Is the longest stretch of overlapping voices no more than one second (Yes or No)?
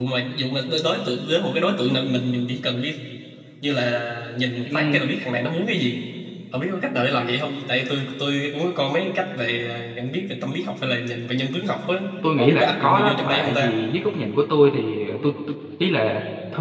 No